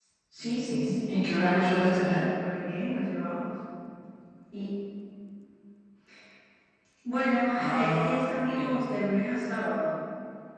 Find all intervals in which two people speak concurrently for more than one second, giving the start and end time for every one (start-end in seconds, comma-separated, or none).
0.6-2.2, 7.6-8.8